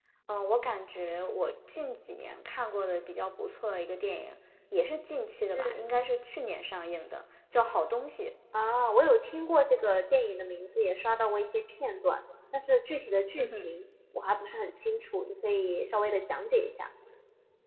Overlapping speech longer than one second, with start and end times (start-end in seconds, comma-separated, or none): none